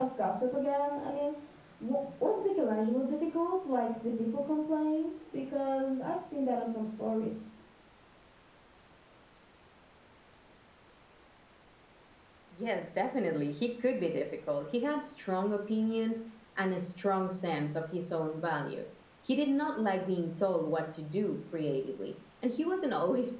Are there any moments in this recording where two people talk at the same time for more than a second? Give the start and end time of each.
none

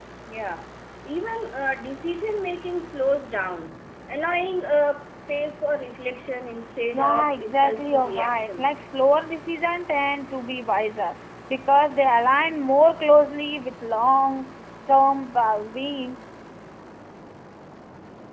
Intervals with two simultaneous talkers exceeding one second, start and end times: 6.9-8.8

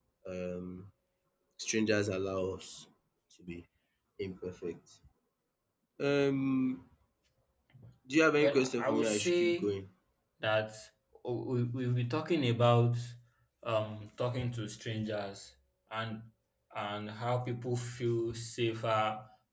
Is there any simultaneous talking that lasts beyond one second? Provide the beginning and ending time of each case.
8.4-9.8

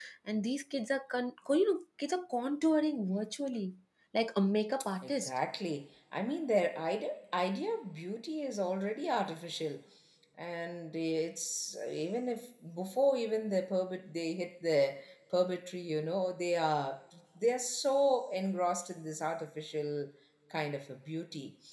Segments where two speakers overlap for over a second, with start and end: none

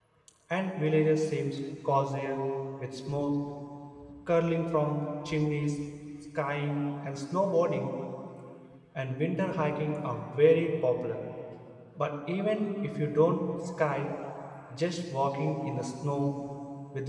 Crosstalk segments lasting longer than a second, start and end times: none

